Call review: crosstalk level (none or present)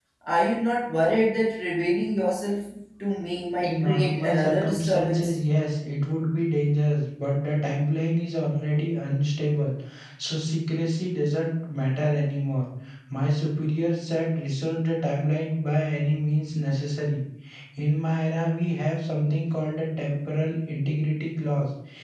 present